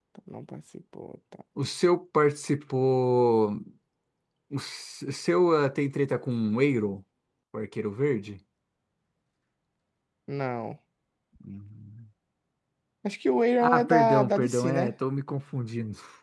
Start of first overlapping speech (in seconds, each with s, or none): 13.6 s